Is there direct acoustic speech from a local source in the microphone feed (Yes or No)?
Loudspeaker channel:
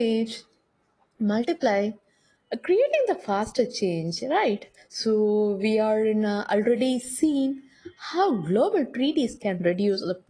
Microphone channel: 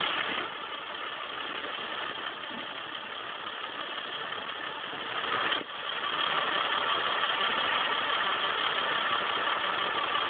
No